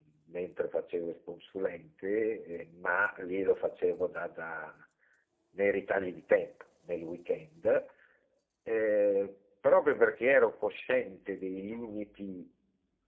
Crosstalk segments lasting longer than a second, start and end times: none

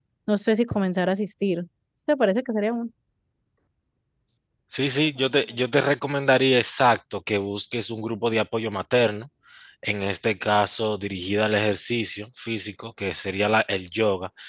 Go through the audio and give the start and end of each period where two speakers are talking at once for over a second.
none

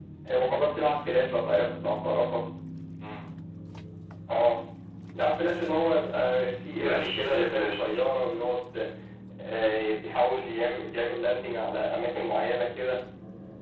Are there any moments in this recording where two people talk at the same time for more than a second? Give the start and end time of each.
6.8-8.0

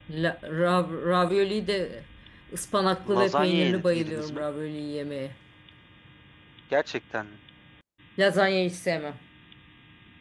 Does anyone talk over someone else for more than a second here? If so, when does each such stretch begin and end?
3.1-4.4

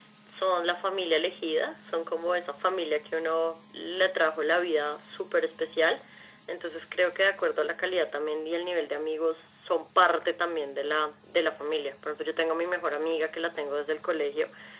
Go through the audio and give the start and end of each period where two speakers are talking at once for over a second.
none

